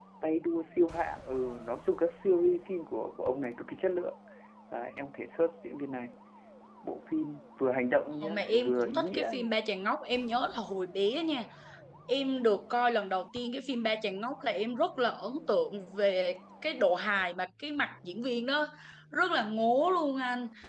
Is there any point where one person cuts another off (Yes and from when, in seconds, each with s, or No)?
Yes, from 8.2 s